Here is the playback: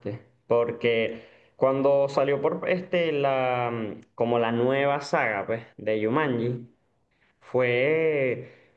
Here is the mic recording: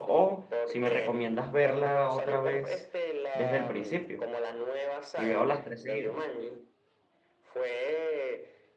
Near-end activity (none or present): present